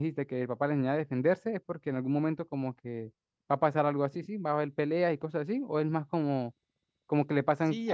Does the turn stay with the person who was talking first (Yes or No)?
No